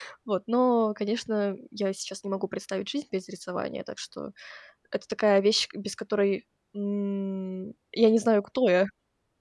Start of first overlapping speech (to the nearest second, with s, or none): none